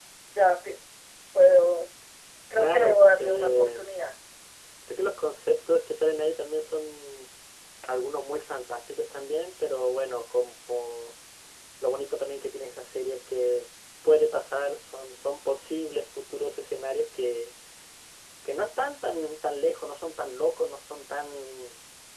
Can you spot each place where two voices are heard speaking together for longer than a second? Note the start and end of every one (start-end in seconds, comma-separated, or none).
2.6-3.8